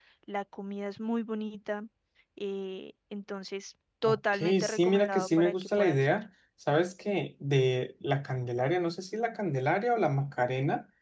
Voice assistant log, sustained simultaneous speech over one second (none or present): present